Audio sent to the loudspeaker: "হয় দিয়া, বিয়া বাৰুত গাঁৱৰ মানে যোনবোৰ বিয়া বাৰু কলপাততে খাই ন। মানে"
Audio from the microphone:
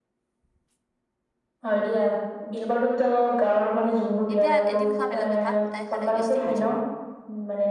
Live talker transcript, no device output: এতিয়া এদিন খোৱা বেলেগ কথা। সদাই খালে, গেষ্টিক হৈ যাব।

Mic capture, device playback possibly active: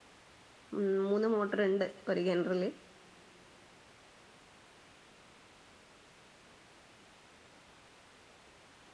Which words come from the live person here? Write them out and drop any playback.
ഉ മൂന്ന് മോട്ടർ ഉണ്ട് ഒരു കിണറിൽ

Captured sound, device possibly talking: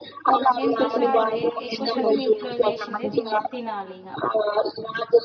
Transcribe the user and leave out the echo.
ఎంత శాత ఎ ఎక్కువ శాతం ఇంట్లో చేసిందే తిన్ తినాలి ఇంగ

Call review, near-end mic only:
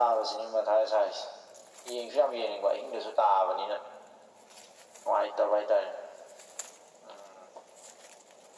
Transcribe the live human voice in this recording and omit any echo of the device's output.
none

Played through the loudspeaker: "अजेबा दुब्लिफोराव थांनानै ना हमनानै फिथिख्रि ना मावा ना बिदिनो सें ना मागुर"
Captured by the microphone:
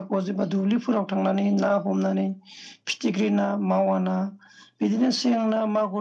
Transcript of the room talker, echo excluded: none

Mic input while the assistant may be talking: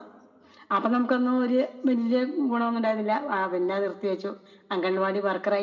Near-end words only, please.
none

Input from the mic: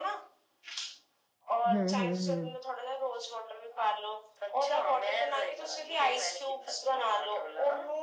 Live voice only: ਹਾਂ, ਹੂੰ, ਹੂੰ, ਹੂੰ।

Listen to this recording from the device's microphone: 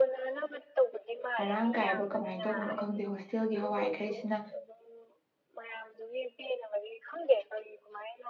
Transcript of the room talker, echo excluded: ꯃꯔꯥꯡ ꯀꯥꯏꯕ ꯀꯃꯥꯏꯅ ꯇꯧꯕꯅꯣ ꯈꯪꯗꯦ ꯍꯣꯁꯇꯦꯜꯒꯤ ꯍꯋꯥꯏꯈꯩꯁꯤꯅ

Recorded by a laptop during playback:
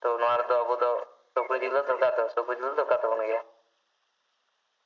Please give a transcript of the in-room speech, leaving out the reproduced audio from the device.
none

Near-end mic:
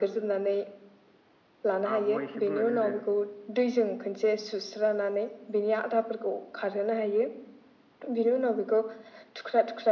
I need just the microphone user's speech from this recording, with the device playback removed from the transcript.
आब'आ एसे बुंनानै होदो।

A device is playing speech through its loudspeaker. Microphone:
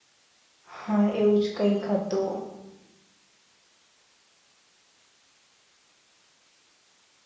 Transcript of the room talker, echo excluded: હા એવું જ કંઈક હ તું.

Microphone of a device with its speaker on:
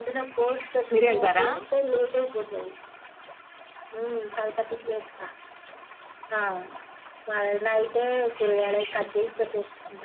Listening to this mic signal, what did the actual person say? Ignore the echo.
మీరేల్ద రా

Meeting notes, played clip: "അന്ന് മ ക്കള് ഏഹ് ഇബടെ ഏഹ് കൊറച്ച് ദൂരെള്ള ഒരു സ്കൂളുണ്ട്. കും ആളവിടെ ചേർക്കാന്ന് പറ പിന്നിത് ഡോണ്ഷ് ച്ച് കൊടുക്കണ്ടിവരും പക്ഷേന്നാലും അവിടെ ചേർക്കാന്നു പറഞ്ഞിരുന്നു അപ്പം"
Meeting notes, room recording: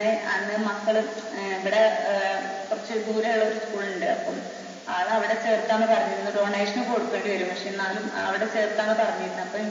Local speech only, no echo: none

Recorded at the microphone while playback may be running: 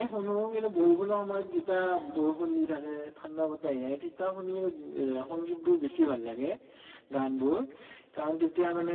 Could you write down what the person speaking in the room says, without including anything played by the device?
none

